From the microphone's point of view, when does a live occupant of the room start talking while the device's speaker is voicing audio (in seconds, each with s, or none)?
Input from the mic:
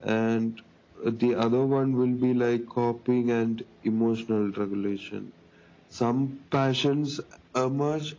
none